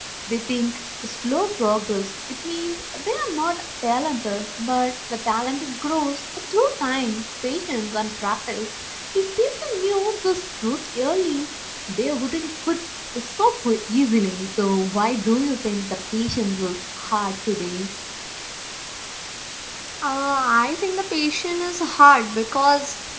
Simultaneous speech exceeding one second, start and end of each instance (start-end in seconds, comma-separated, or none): none